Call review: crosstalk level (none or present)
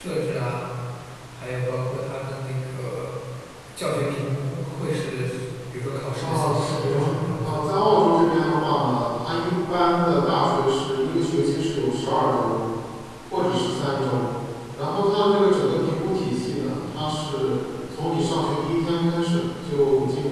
present